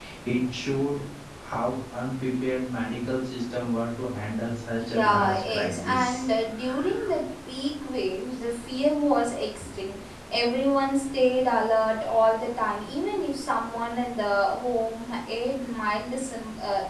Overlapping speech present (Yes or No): Yes